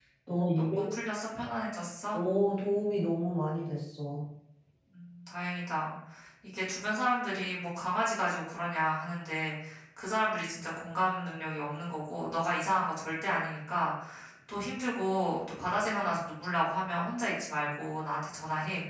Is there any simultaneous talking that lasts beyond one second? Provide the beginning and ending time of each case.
none

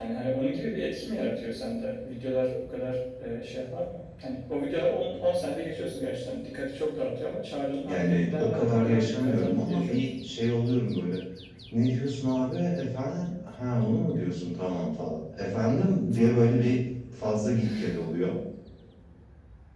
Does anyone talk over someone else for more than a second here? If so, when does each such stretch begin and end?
7.8-10.1

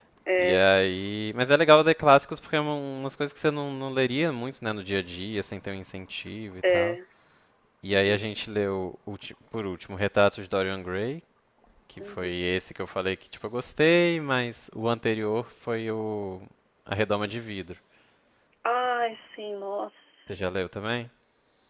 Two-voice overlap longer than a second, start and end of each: none

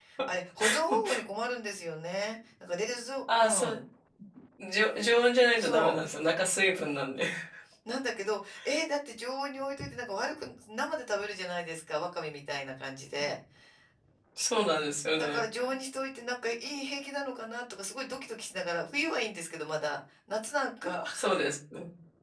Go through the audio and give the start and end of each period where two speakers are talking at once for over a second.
none

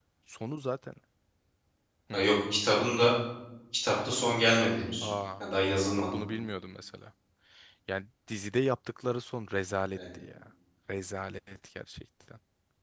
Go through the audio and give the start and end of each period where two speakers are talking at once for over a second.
none

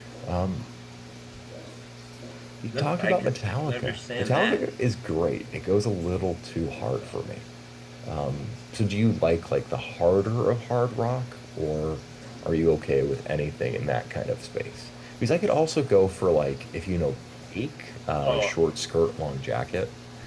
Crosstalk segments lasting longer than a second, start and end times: 2.7-4.6

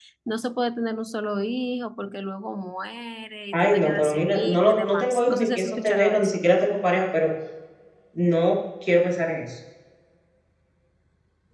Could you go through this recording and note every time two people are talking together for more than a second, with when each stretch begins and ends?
3.5-6.4

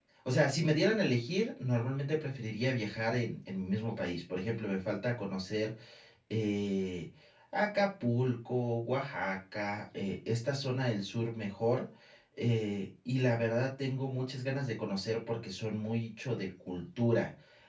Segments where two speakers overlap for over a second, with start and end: none

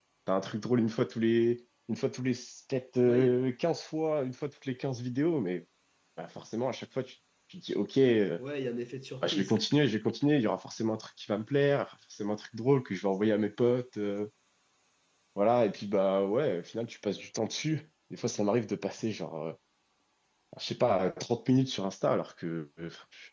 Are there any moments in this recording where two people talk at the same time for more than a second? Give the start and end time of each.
none

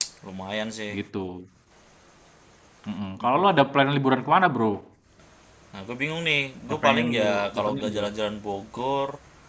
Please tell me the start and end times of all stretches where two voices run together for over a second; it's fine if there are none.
6.7-8.1

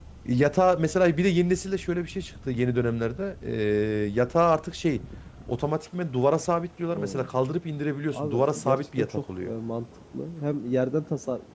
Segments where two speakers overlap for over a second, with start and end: 8.1-9.5

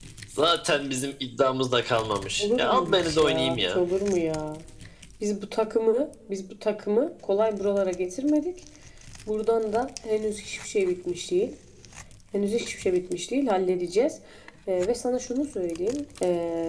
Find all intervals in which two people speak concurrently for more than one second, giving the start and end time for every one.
2.4-3.8

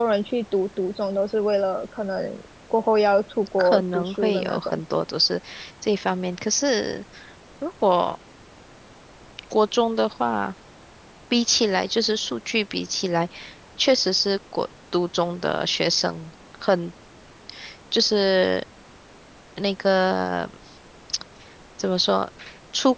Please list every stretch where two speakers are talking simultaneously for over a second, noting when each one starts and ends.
3.6-4.8

